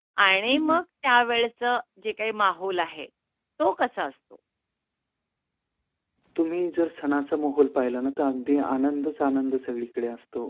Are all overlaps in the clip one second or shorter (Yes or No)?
Yes